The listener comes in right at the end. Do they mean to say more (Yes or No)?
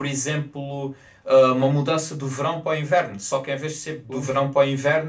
No